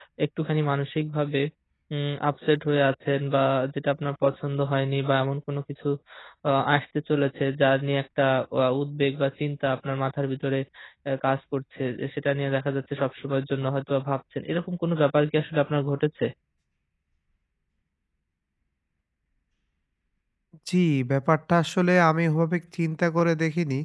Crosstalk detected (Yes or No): No